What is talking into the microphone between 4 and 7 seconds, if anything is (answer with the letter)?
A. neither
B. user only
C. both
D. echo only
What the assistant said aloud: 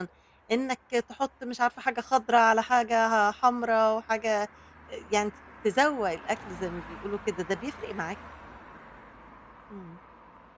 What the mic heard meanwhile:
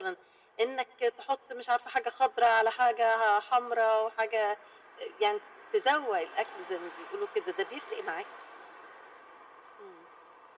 D